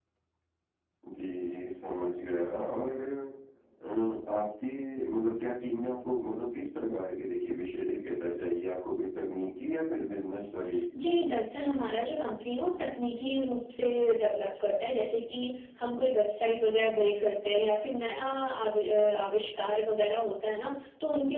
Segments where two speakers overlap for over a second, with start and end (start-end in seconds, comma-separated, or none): none